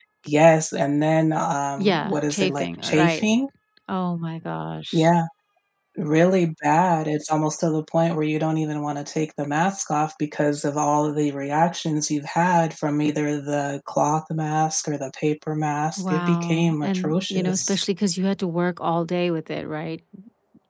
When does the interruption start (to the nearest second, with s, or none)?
2 s